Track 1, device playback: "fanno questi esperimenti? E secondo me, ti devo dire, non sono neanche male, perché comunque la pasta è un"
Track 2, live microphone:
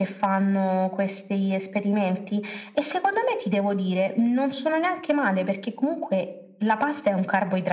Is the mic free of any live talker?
Yes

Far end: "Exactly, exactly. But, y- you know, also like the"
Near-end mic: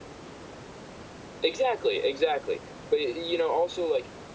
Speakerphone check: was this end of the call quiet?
Yes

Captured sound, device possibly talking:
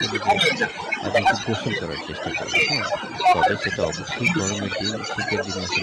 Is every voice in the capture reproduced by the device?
No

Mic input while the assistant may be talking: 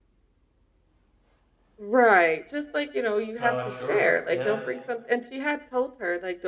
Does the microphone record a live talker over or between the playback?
Yes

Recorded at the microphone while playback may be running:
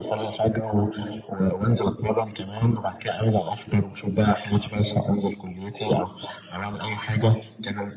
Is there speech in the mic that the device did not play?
No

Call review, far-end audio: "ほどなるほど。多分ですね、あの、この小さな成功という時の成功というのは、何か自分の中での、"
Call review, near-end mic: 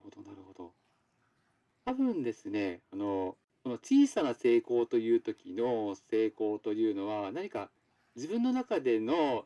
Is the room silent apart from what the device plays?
Yes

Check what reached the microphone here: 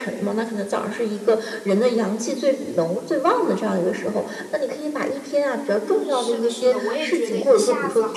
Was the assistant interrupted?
Yes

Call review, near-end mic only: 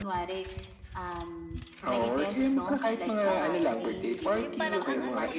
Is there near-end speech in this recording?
Yes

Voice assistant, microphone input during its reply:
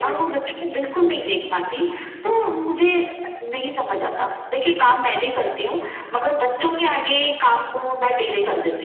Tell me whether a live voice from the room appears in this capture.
No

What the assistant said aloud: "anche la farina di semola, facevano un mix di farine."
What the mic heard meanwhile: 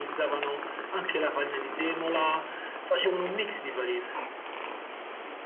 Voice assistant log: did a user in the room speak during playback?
No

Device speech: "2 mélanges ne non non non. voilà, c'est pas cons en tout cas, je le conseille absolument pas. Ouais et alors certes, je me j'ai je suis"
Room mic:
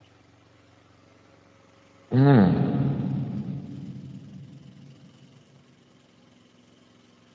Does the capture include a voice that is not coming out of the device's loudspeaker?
Yes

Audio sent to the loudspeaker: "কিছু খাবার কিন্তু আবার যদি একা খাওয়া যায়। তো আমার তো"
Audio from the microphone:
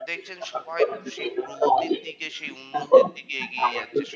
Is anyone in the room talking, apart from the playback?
Yes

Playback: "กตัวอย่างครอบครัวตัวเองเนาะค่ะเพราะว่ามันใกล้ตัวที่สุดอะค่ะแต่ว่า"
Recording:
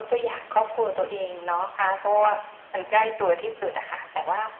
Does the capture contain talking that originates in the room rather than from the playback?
No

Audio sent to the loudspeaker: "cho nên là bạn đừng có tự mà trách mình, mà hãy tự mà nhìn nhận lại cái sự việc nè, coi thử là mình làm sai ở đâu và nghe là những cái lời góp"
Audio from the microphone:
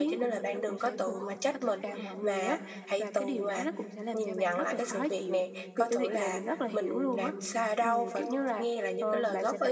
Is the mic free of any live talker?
No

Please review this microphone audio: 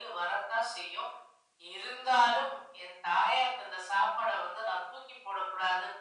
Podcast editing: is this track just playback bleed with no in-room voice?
Yes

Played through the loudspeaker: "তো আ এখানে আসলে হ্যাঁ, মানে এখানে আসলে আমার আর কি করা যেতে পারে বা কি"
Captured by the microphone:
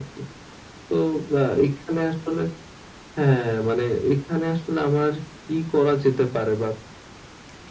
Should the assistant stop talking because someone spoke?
No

